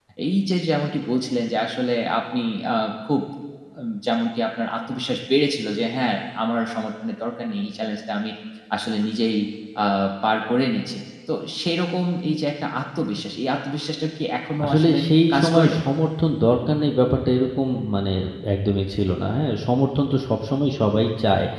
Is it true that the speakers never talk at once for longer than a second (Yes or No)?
Yes